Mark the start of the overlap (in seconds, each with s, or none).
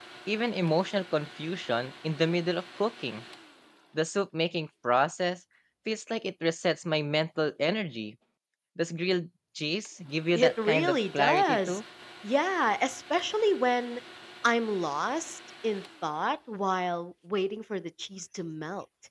10.3 s